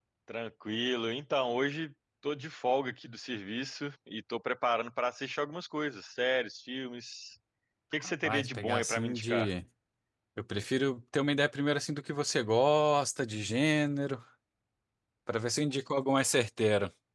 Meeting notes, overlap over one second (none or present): present